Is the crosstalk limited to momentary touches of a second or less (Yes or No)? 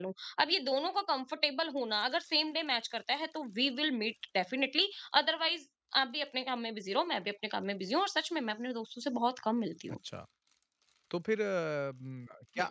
Yes